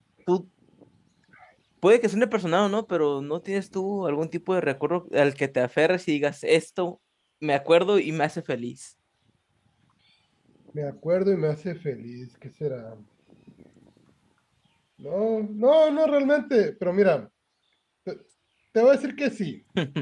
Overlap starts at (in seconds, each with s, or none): none